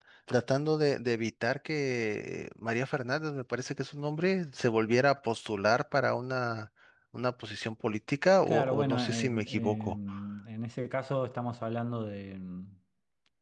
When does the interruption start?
8.5 s

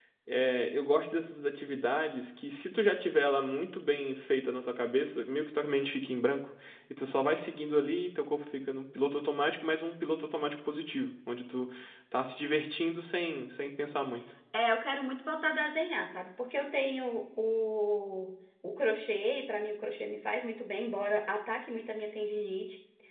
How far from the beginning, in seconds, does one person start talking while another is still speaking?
none

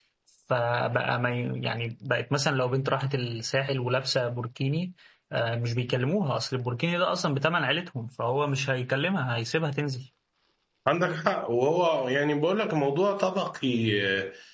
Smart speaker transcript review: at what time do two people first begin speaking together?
none

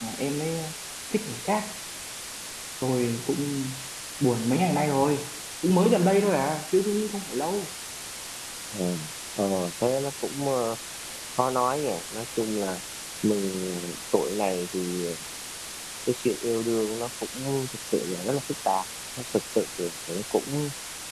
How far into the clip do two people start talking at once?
none

